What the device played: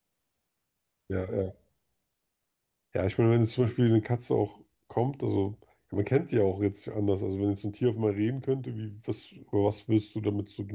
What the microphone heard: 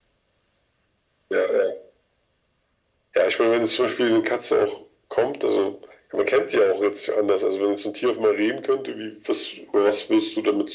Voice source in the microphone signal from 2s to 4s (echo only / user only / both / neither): echo only